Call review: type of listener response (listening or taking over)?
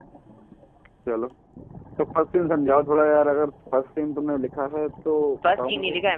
taking over